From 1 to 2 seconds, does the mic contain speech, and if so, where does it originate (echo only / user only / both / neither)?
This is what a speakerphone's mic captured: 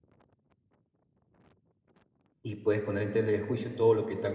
neither